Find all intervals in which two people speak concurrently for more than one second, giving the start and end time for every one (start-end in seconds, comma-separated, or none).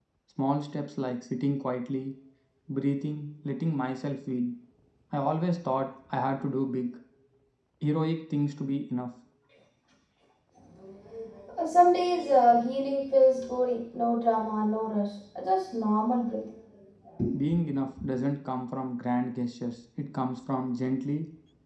none